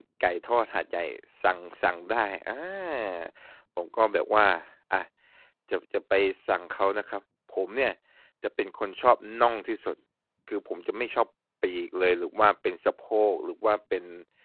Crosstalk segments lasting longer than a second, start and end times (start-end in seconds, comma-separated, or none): none